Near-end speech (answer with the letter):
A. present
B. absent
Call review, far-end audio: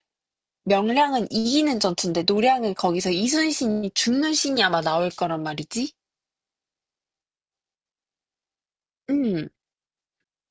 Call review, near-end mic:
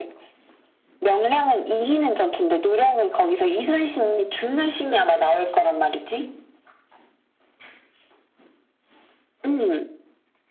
B